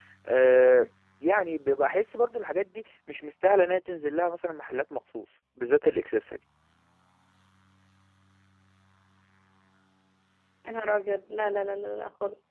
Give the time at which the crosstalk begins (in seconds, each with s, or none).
none